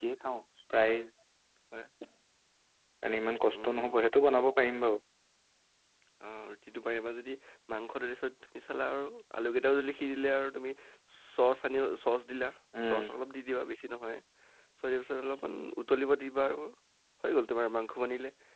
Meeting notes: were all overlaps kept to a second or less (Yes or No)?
Yes